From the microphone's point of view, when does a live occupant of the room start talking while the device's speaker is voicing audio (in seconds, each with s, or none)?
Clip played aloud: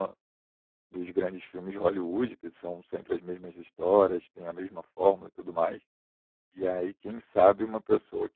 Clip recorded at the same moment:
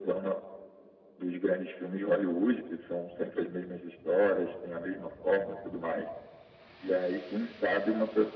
none